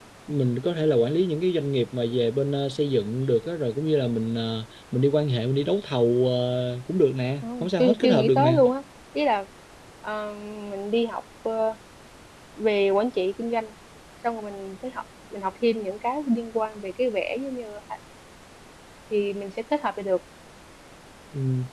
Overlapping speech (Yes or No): Yes